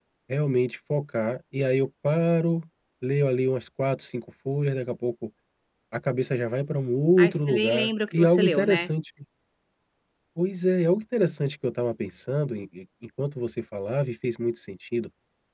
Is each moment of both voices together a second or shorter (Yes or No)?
No